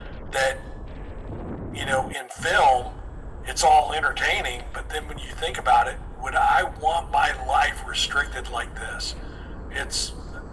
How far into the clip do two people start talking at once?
none

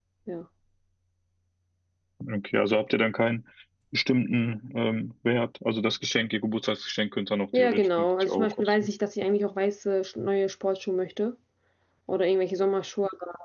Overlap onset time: 7.5 s

